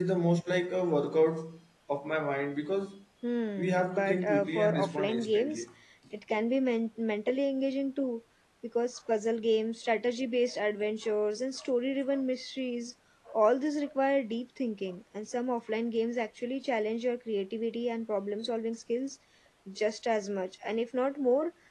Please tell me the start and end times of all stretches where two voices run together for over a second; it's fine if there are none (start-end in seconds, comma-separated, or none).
3.6-5.6